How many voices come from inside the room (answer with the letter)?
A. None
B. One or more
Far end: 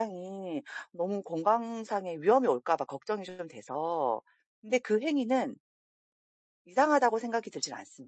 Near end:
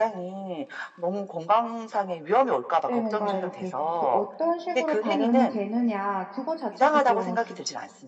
B